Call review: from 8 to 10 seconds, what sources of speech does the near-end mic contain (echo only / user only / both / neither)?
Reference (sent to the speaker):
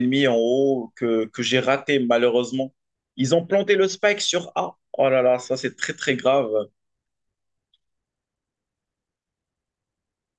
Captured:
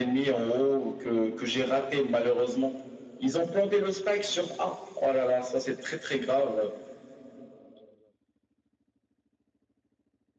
neither